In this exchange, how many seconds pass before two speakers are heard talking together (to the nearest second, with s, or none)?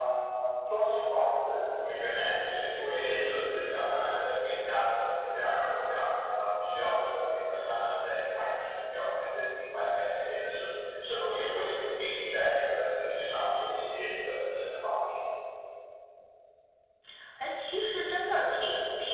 none